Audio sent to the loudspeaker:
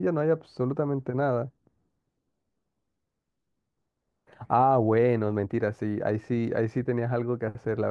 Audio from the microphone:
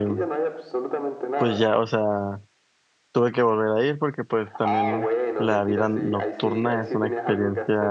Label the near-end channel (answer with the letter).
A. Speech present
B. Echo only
A